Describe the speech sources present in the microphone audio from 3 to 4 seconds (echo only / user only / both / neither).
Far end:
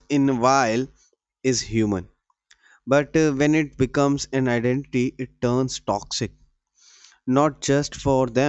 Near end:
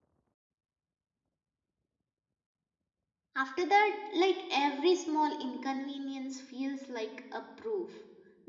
user only